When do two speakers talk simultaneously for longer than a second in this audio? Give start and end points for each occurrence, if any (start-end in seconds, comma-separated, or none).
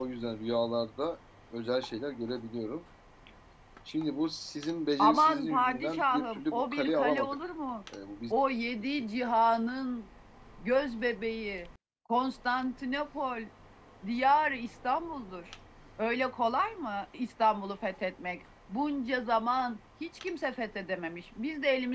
5.0-7.5